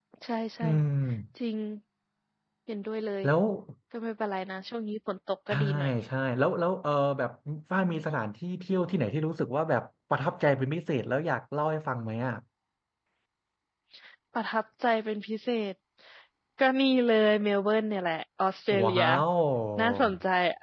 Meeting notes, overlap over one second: none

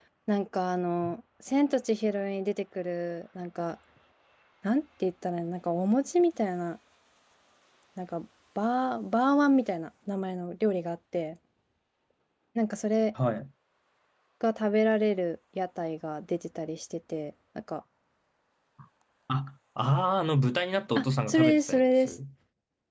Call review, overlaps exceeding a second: present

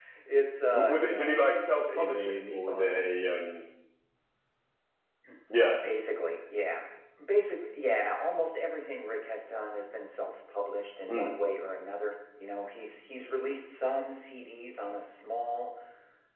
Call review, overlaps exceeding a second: present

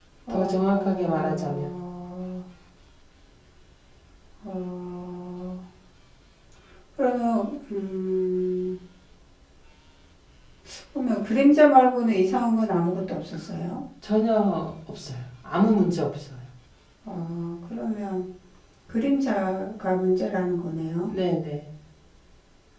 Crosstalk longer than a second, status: present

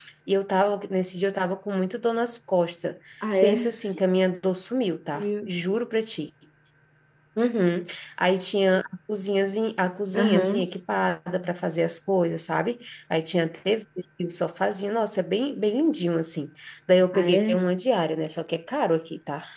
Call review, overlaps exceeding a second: none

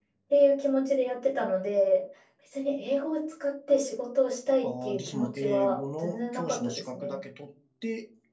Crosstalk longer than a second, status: present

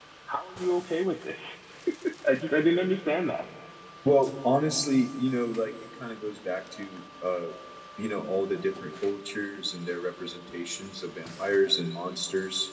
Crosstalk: none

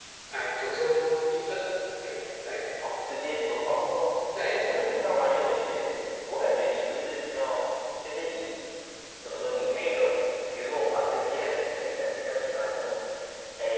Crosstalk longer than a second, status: none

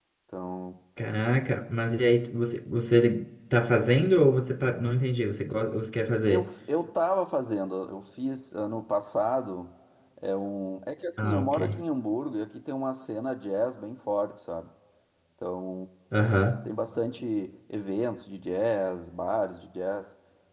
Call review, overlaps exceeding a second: none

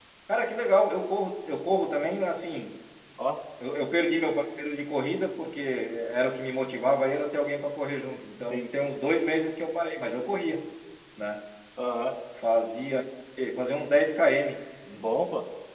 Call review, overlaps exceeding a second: none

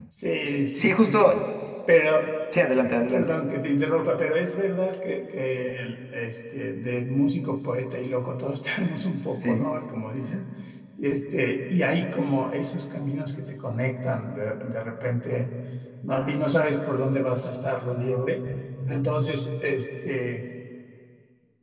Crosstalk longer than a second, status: none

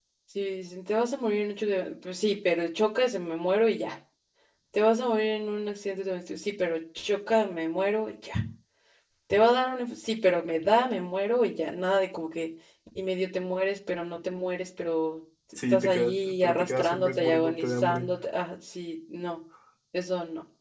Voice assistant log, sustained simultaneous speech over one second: present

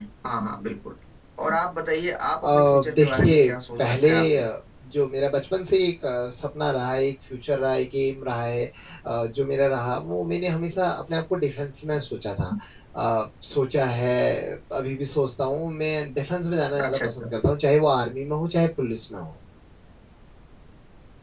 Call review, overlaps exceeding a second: present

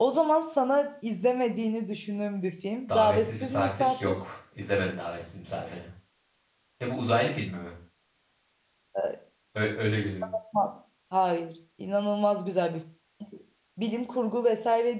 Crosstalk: present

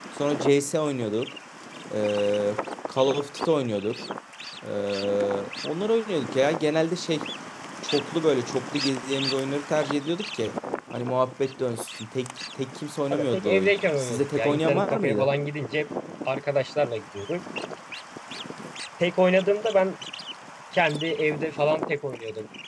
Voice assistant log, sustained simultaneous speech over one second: present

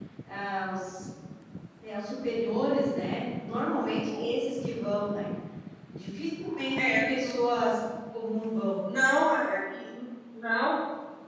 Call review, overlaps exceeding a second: none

